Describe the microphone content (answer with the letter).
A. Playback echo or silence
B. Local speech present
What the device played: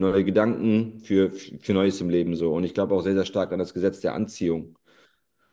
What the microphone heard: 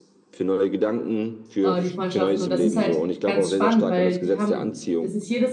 B